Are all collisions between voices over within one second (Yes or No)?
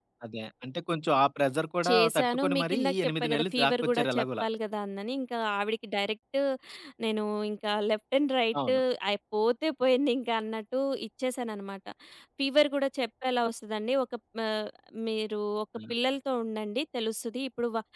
No